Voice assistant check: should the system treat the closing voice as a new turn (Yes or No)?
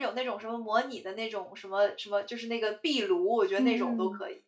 Yes